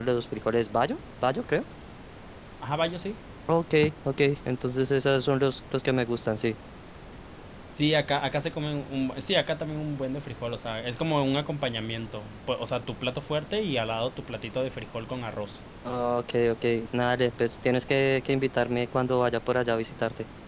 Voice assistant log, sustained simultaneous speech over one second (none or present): none